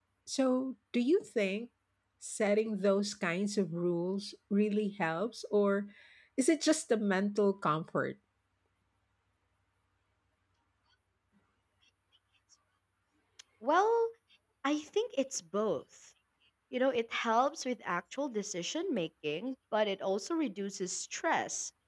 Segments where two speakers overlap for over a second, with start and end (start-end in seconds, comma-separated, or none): none